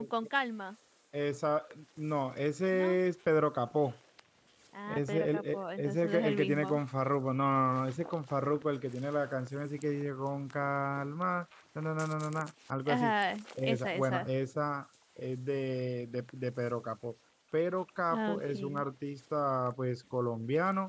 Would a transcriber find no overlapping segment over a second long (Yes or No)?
No